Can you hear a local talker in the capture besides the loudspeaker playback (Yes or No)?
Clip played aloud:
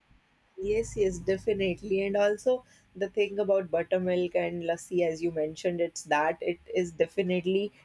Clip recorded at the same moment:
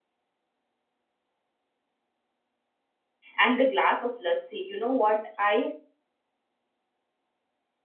Yes